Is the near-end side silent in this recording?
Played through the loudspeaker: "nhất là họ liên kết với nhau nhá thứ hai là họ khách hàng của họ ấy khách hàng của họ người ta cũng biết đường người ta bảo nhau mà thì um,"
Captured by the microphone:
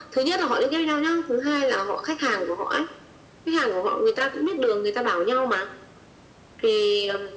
Yes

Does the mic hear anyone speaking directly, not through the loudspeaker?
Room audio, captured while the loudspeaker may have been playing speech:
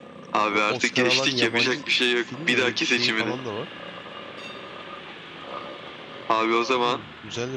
Yes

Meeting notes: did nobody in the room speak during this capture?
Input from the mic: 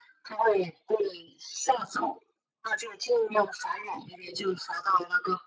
Yes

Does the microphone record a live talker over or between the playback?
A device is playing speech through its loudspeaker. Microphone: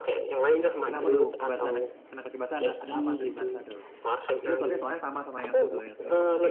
Yes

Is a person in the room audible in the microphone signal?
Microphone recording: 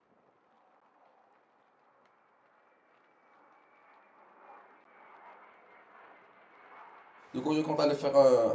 Yes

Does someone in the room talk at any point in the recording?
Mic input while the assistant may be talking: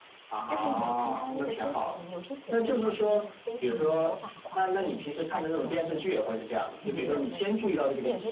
Yes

